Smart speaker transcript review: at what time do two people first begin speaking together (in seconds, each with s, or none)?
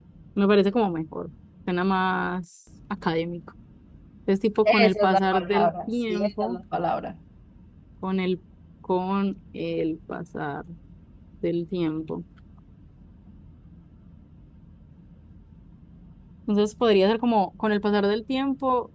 4.7 s